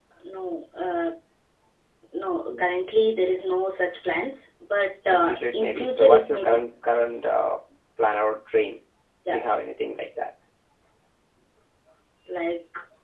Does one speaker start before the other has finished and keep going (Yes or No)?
Yes